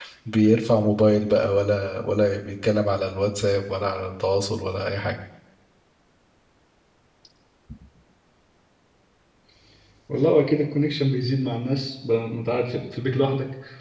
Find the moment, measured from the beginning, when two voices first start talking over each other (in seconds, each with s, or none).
none